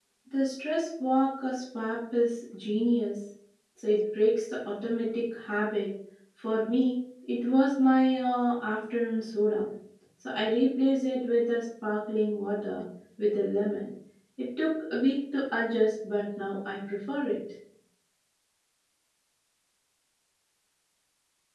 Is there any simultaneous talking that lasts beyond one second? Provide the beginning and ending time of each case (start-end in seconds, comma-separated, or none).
none